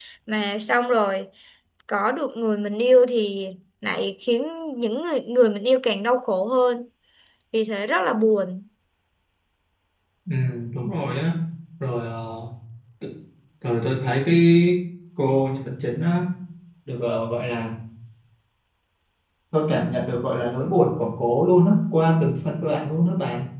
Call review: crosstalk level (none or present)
none